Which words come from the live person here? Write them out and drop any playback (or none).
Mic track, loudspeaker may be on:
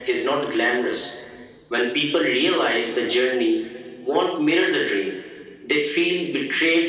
none